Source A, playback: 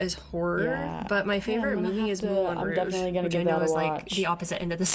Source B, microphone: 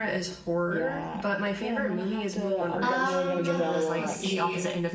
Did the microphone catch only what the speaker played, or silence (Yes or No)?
No